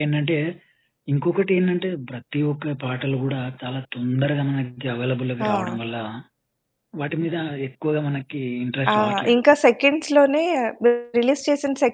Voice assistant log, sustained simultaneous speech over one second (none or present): none